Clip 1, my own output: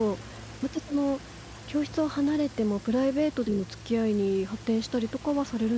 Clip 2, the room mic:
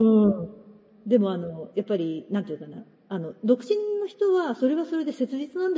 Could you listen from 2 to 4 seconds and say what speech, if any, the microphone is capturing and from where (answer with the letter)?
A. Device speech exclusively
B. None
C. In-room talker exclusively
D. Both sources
C